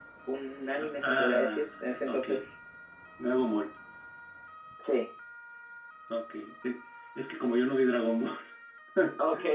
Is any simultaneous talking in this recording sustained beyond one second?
Yes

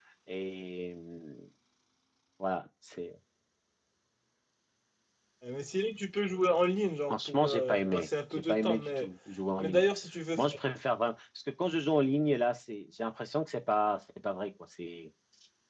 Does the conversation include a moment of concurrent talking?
Yes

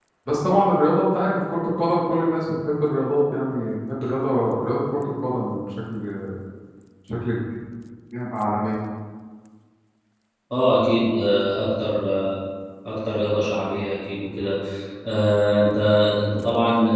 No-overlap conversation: Yes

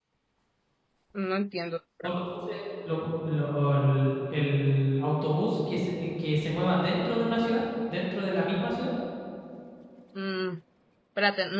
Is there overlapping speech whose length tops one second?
No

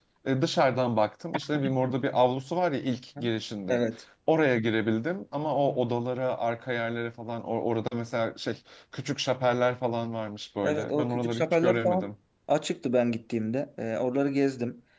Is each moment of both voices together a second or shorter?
No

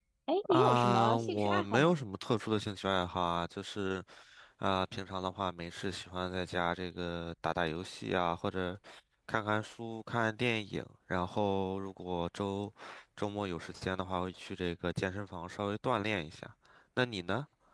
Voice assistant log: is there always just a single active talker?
No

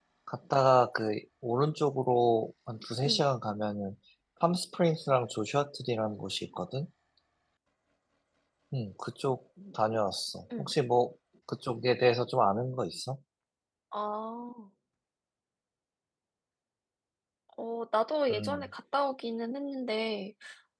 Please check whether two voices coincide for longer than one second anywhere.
No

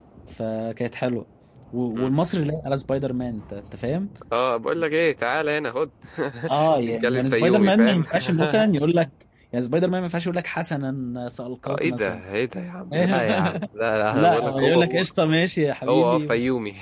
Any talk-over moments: Yes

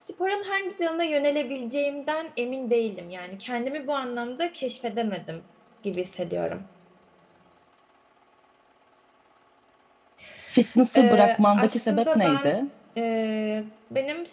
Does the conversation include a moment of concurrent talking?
Yes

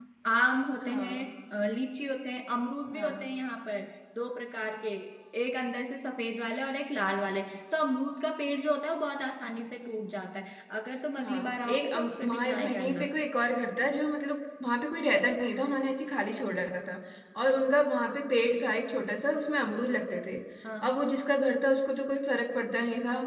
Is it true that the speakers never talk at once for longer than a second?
No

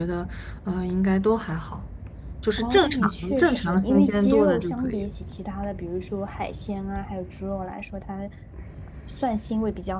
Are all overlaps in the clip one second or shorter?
No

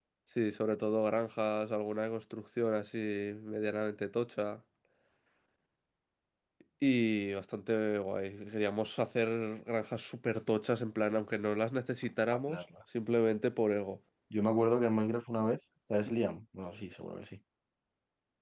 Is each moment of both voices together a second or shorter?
Yes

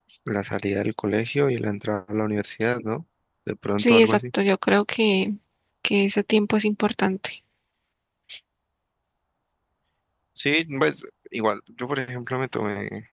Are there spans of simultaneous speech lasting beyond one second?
No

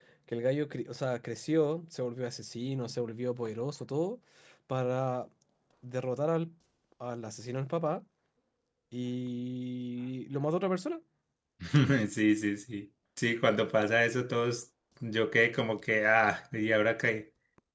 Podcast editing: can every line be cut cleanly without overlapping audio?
Yes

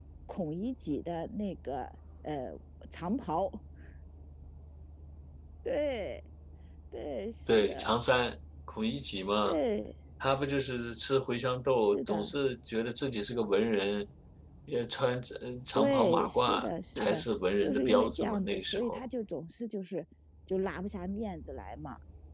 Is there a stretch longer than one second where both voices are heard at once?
Yes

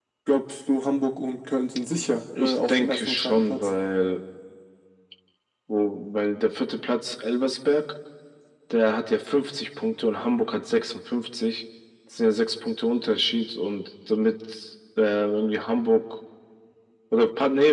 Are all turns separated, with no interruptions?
No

